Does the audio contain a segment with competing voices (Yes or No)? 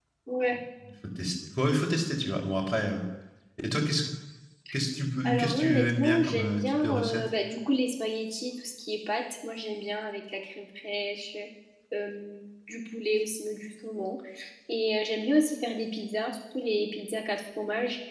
Yes